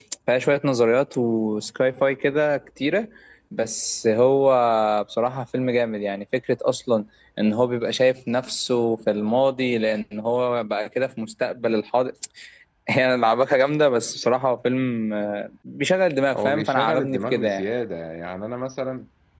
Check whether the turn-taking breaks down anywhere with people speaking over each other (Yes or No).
Yes